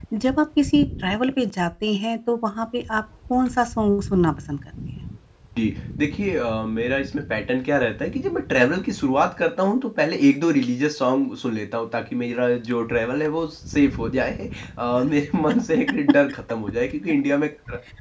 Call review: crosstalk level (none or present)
none